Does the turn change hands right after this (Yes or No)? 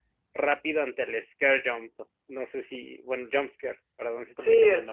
Yes